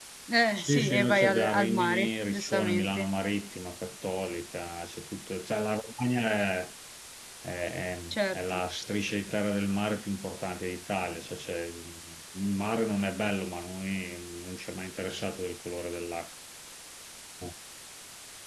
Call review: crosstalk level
present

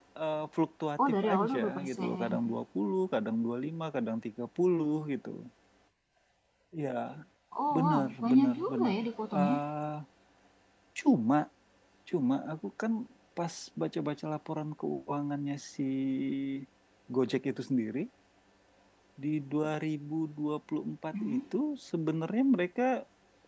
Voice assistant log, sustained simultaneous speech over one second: present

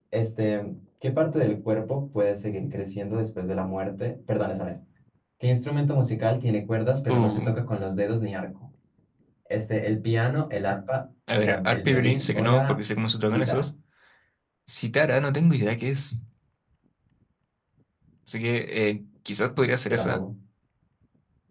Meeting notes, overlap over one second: present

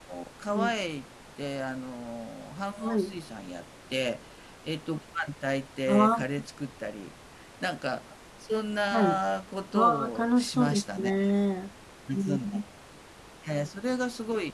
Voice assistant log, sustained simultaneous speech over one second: present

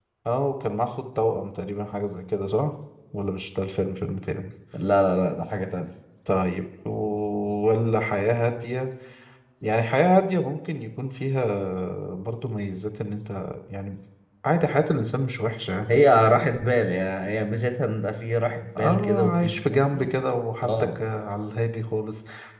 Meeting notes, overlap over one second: present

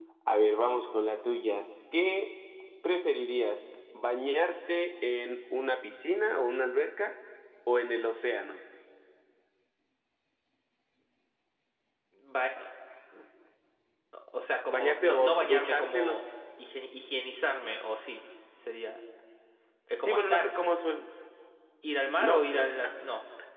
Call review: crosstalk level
present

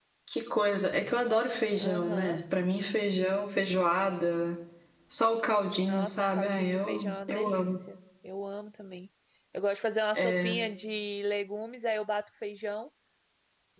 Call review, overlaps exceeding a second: present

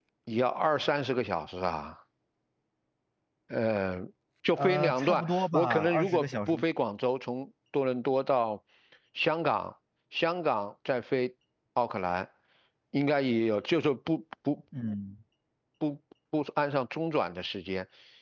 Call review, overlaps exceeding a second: present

